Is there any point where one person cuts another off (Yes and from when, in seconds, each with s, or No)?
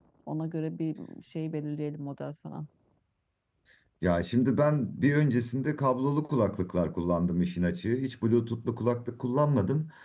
No